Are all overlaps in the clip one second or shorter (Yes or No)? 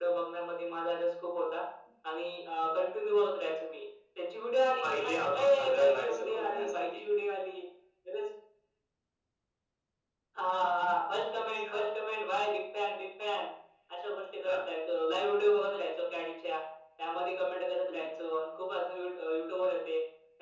No